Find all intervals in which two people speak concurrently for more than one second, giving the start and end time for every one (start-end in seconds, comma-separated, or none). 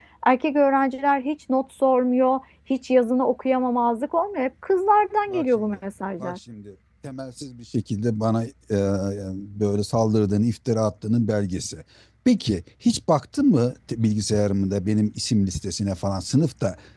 none